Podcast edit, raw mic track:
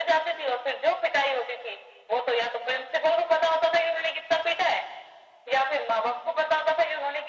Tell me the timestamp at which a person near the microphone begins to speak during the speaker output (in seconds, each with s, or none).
none